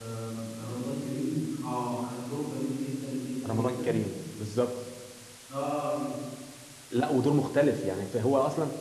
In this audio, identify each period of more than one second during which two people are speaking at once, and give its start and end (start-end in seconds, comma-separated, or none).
none